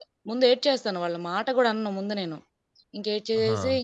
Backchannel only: Yes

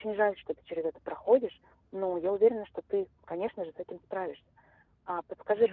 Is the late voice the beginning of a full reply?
No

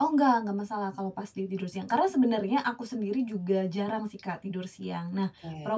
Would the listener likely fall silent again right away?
Yes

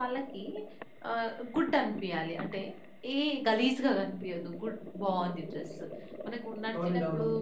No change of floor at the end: Yes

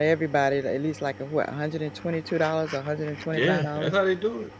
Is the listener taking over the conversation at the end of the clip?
Yes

